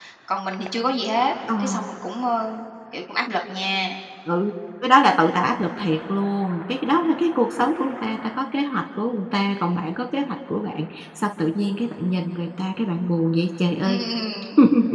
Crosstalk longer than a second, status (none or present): none